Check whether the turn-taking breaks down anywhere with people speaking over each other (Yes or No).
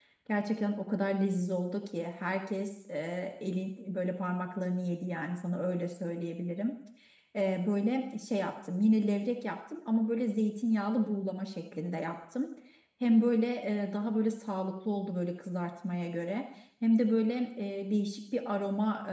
No